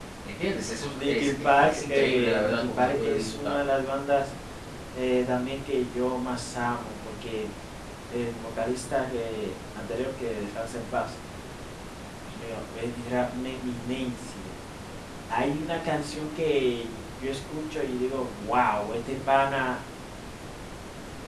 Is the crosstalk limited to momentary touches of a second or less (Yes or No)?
No